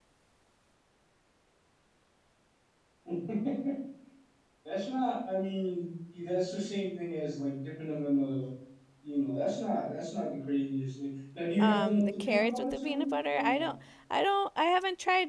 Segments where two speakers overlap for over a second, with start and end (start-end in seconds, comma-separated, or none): 11.6-13.7